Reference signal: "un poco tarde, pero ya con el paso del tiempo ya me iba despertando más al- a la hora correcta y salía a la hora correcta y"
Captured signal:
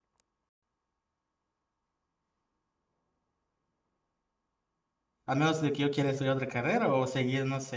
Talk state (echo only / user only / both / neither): user only